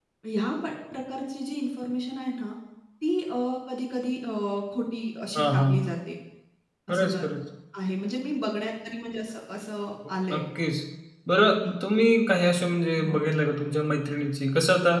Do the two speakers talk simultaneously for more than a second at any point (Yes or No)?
No